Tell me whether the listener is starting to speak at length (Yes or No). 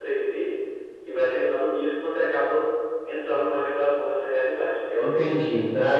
Yes